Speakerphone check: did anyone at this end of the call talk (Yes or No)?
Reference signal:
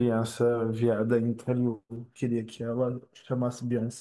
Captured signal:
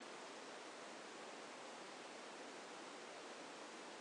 No